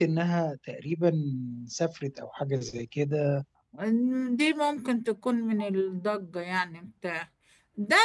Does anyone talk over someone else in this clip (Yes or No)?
No